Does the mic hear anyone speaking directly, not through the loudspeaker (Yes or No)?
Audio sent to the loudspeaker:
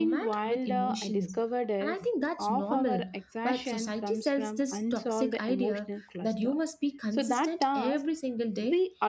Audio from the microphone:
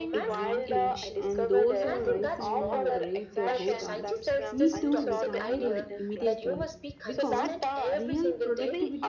Yes